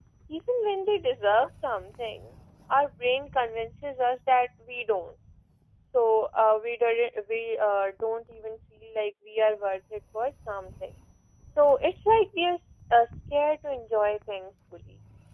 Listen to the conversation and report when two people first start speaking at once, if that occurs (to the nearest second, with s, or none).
none